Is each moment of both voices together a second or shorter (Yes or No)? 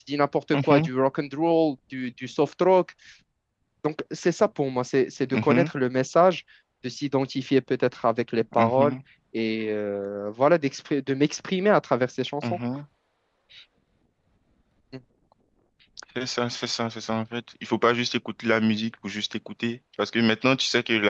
Yes